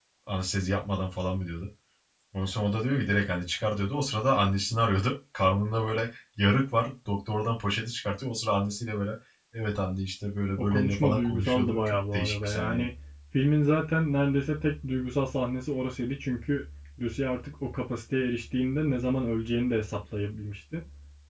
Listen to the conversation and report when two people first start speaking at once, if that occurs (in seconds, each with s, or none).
10.6 s